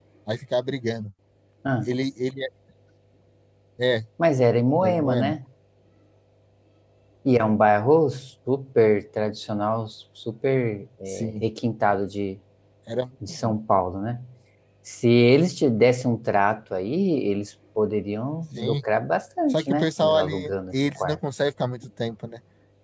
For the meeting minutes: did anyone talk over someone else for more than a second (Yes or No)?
Yes